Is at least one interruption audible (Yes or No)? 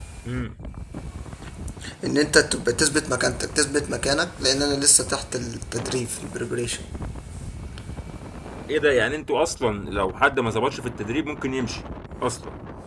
No